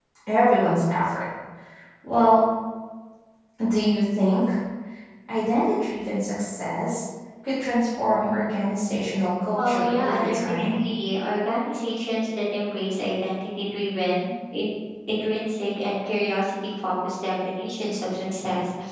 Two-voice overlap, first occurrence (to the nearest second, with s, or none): 10 s